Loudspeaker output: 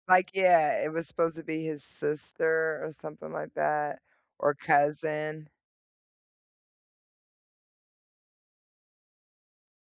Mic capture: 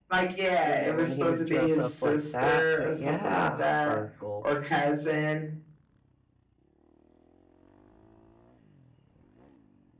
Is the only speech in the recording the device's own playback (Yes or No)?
No